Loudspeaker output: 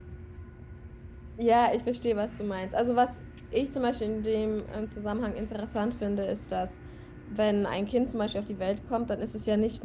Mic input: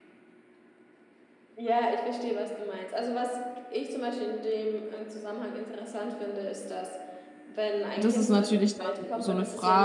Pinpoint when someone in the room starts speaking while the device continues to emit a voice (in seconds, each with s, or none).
8.0 s